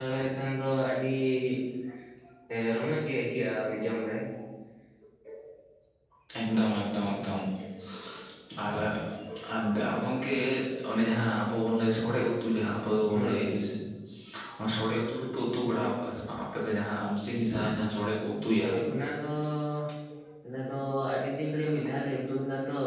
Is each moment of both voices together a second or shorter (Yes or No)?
Yes